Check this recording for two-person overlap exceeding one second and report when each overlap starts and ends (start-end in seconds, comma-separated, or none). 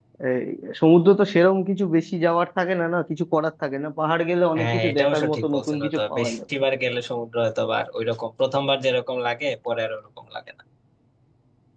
4.6-6.4